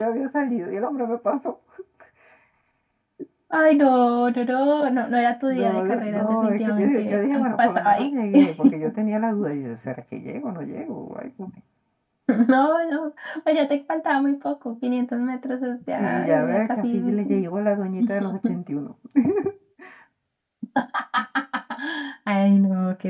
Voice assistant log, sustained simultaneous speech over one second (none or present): present